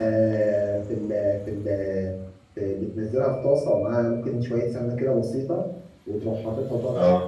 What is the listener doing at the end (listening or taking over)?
listening